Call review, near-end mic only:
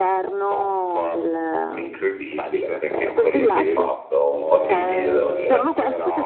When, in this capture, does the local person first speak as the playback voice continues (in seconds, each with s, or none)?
1.7 s